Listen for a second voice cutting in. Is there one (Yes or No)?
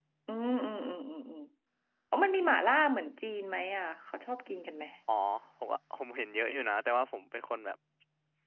No